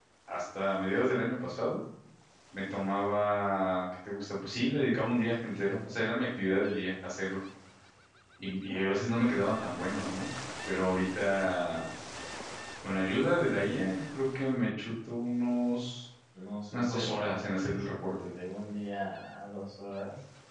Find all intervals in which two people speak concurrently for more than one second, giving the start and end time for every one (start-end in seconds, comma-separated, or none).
16.7-18.1